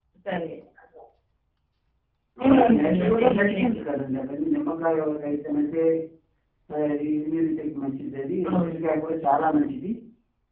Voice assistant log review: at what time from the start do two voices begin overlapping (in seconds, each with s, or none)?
2.4 s